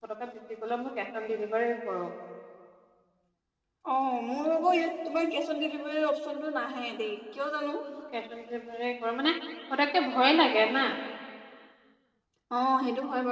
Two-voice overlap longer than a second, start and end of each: none

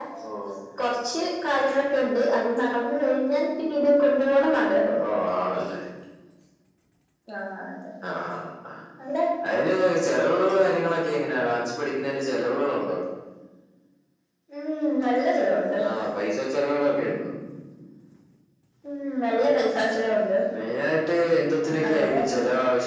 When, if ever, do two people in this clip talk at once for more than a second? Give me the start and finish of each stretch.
none

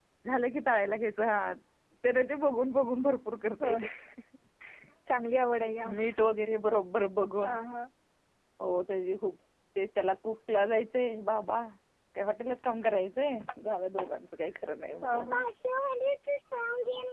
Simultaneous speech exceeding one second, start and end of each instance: none

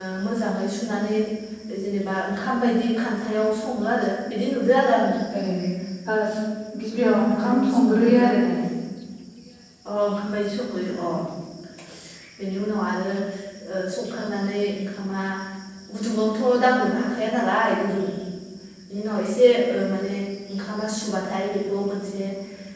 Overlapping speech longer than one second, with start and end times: 6.9-8.3

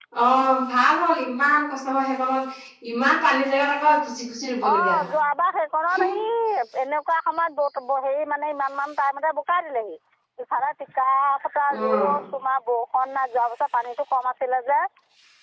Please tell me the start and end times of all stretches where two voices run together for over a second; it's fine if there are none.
none

